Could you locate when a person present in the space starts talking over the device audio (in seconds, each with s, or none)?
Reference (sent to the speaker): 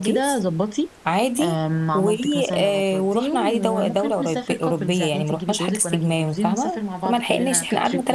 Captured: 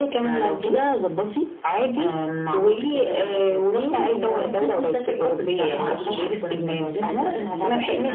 5.5 s